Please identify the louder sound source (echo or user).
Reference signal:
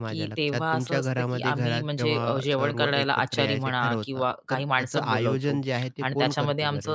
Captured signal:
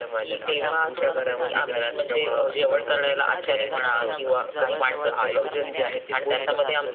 echo